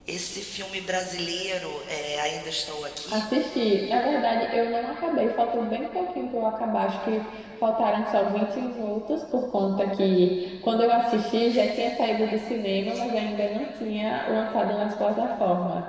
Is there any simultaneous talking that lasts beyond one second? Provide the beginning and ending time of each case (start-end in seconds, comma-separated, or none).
none